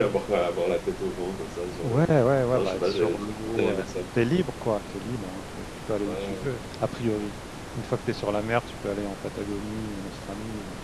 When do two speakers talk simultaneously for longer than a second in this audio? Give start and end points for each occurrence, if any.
2.5-4.0

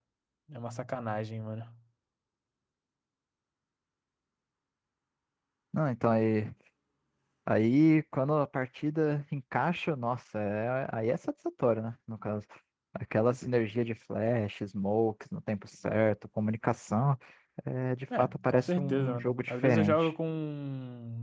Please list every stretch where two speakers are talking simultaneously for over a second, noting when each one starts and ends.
18.2-20.1

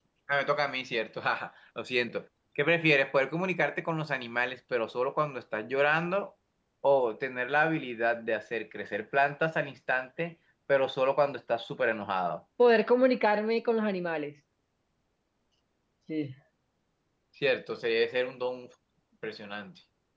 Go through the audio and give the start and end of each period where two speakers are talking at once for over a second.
none

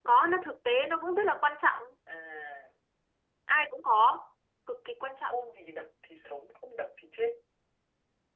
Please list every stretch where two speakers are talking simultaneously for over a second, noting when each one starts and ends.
none

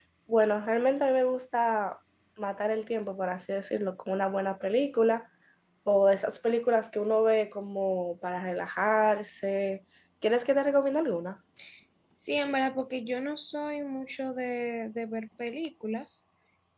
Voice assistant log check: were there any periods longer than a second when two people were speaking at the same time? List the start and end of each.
none

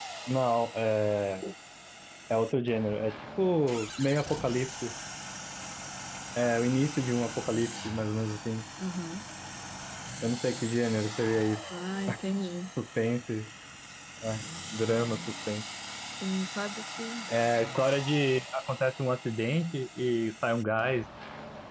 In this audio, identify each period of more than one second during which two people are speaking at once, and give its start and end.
none

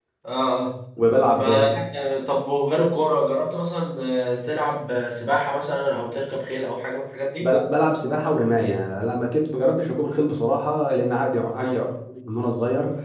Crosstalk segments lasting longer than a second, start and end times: none

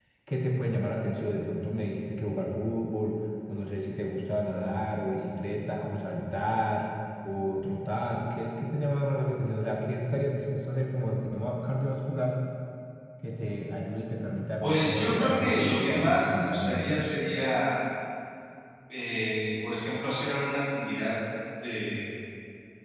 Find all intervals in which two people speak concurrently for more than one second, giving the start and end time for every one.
14.6-16.9

